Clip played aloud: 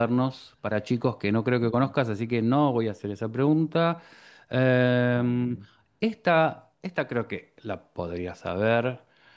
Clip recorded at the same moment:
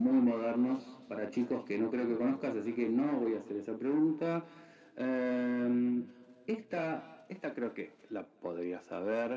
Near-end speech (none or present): none